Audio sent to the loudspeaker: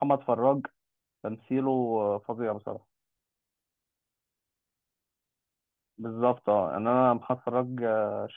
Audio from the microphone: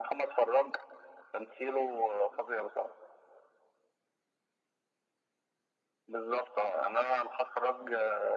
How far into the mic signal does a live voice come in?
none

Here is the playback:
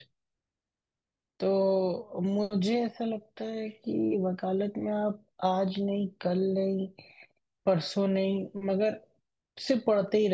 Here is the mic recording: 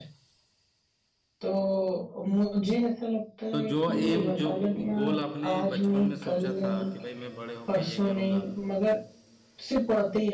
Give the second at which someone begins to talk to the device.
3.5 s

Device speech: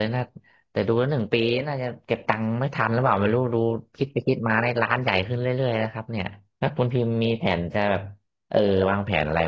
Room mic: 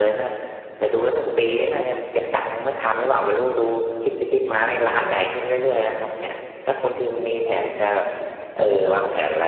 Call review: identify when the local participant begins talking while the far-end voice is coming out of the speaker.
none

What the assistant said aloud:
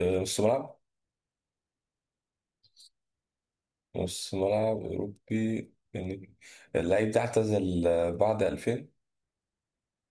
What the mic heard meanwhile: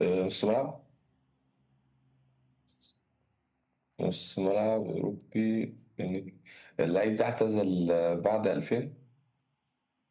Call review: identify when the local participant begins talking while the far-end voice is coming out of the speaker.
none

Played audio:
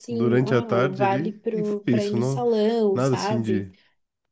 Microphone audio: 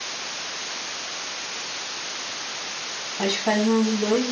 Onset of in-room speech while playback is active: 3.2 s

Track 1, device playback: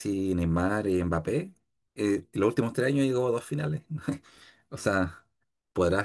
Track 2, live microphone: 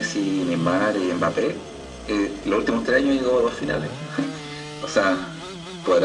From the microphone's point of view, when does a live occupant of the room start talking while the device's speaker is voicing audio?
none

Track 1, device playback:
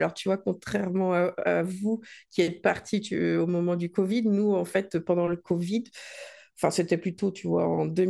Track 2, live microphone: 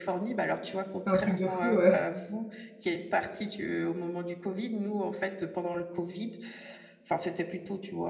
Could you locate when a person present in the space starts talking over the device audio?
1.0 s

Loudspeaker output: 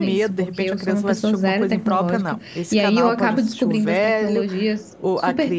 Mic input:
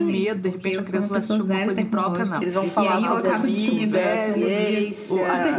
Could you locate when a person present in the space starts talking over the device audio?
2.4 s

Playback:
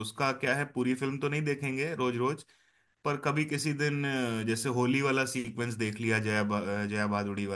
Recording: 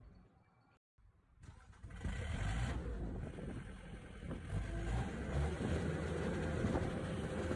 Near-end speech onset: none

